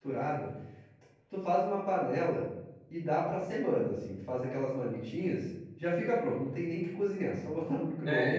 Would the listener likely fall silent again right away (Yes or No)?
No